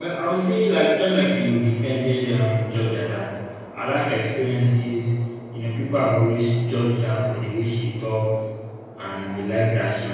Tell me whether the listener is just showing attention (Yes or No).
Yes